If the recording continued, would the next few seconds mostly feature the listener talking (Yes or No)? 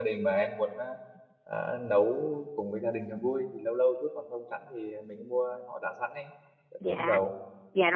Yes